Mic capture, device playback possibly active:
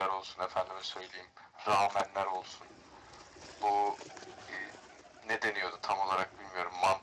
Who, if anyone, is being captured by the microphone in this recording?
echo only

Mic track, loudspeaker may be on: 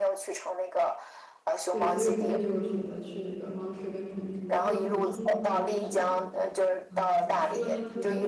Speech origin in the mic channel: both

